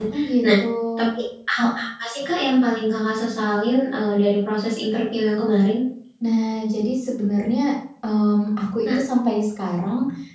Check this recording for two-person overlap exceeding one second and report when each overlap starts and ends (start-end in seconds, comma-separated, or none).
none